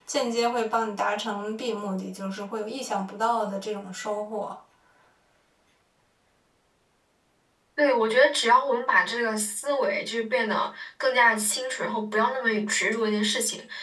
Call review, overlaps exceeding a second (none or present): none